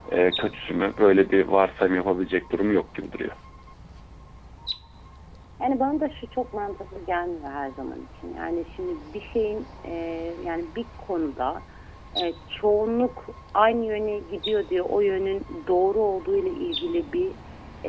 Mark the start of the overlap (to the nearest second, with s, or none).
none